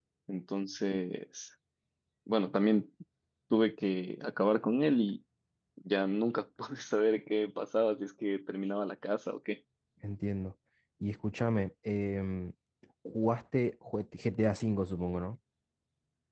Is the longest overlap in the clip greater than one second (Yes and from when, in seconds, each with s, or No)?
No